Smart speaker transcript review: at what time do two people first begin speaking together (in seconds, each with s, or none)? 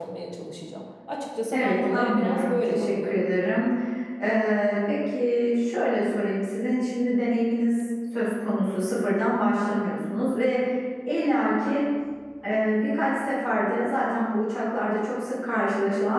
1.5 s